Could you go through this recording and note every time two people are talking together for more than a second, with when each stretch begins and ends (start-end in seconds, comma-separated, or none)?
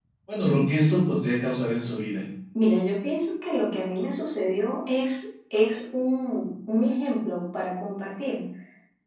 none